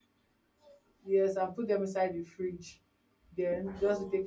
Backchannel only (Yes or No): Yes